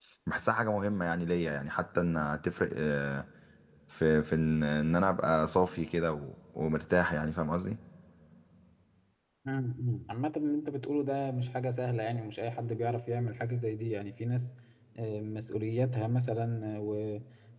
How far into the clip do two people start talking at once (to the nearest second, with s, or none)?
none